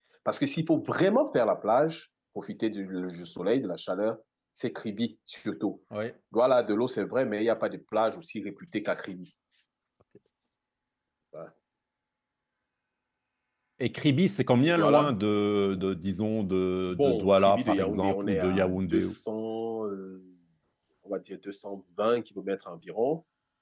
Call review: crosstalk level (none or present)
present